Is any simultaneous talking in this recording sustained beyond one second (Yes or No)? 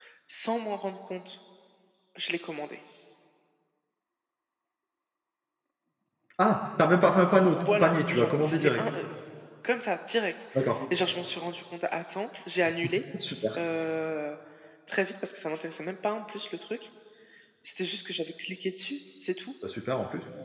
Yes